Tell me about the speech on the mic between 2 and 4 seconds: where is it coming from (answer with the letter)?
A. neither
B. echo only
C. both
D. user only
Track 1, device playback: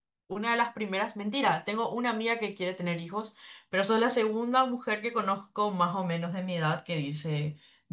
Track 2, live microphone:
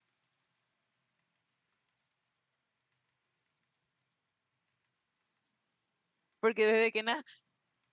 A